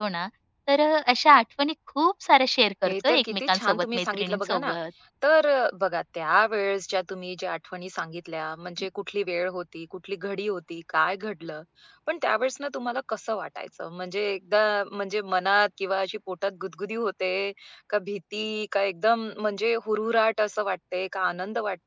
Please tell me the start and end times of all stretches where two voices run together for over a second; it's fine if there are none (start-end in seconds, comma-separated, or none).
2.8-4.7